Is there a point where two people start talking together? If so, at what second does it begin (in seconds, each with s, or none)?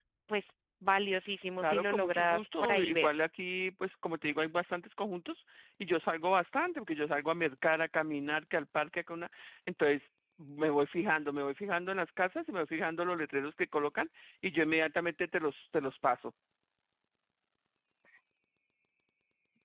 1.6 s